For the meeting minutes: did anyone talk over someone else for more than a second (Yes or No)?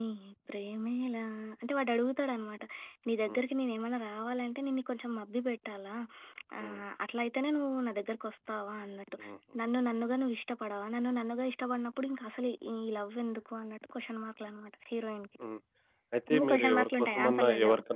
Yes